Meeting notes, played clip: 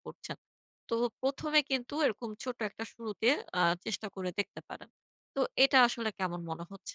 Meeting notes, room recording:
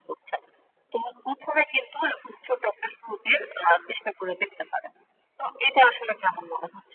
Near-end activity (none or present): none